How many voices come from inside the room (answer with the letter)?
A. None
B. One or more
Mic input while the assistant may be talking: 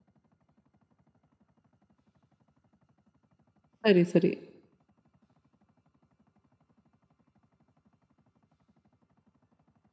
B